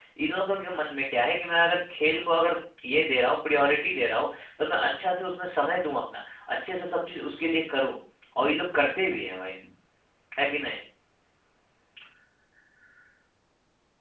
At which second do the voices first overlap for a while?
none

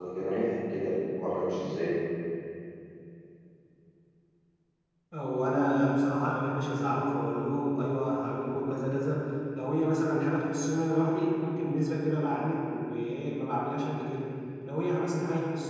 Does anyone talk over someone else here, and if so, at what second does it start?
none

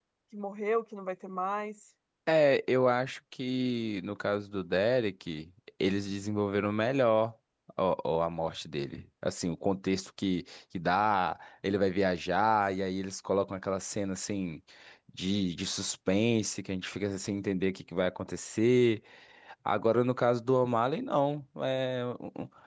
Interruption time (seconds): none

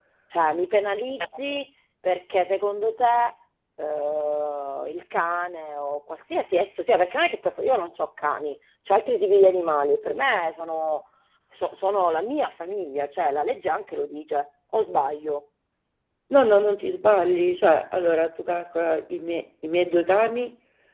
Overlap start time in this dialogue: none

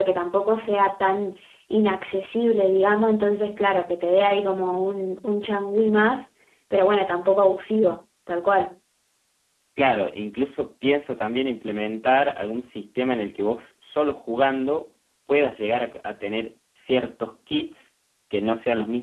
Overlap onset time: none

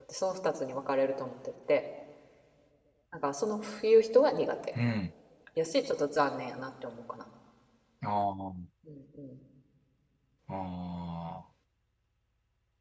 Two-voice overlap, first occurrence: none

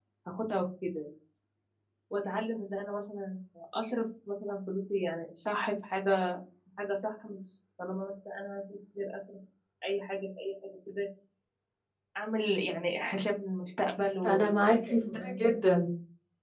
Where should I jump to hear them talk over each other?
14.2 s

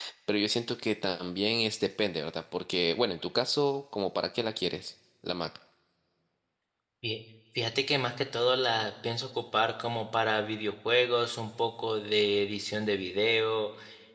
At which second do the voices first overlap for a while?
none

